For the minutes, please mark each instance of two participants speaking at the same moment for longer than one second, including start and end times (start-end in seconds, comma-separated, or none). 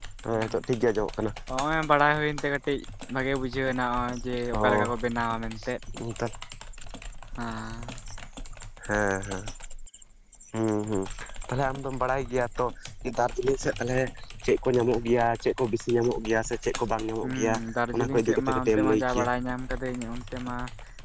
17.9-19.2